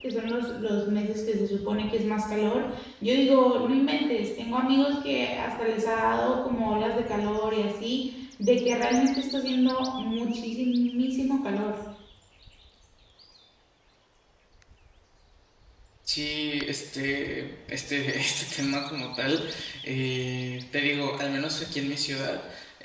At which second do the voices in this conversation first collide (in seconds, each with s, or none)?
none